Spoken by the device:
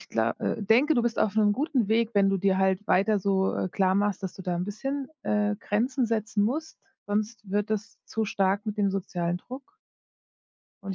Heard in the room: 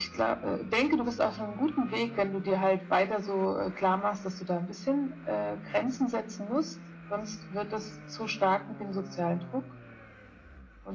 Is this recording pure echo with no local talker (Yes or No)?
Yes